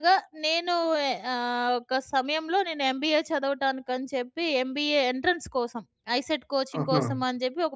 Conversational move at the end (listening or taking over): listening